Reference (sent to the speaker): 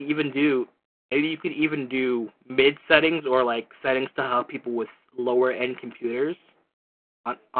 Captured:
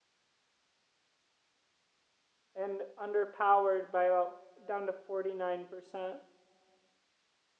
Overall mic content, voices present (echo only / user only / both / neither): user only